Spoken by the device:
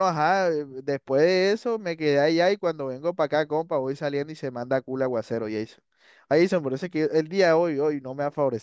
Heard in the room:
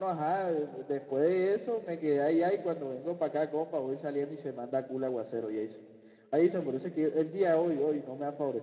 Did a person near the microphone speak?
No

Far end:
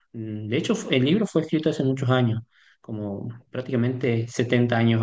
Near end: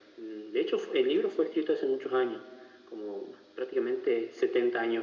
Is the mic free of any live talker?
Yes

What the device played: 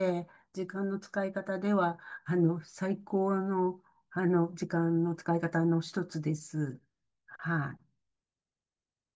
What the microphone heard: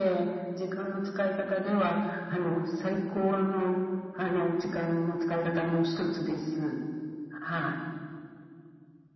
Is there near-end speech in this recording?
No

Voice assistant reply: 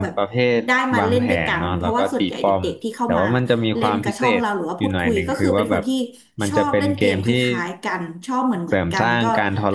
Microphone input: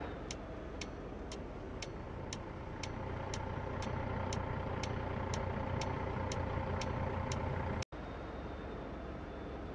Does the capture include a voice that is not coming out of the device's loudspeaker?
No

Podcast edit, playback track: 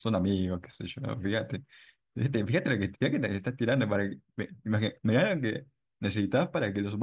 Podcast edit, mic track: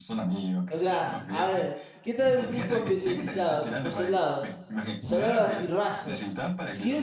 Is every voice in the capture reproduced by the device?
No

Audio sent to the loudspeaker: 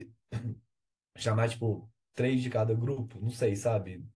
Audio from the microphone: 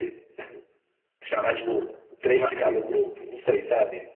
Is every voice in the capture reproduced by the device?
No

